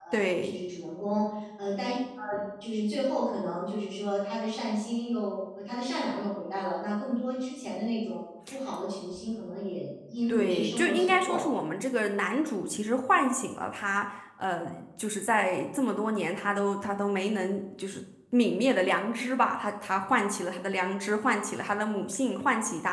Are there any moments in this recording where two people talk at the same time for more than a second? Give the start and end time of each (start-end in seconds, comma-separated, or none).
10.3-11.5